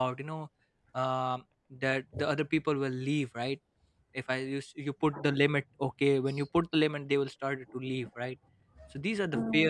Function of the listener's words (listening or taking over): listening